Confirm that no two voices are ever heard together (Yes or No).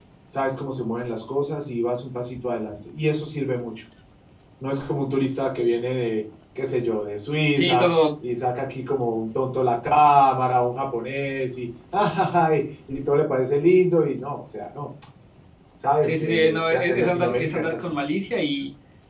No